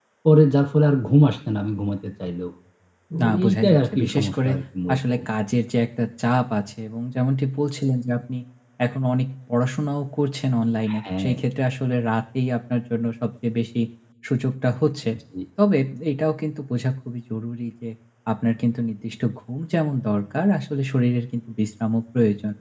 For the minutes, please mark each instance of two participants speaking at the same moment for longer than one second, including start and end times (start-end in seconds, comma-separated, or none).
3.2-4.5